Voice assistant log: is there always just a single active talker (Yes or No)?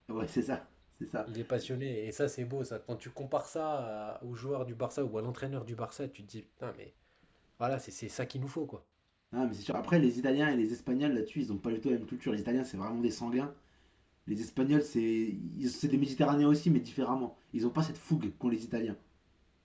Yes